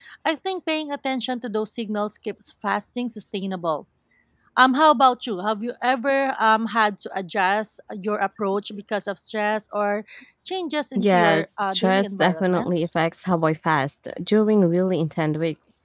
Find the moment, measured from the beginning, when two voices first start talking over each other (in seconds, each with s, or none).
11.0 s